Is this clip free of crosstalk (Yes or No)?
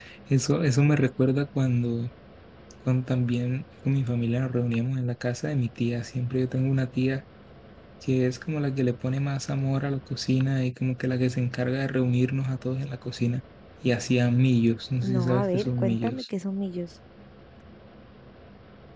No